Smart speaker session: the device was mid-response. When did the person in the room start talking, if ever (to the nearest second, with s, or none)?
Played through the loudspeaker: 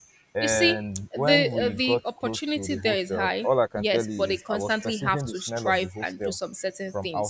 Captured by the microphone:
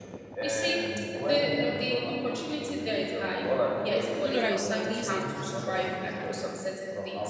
4 s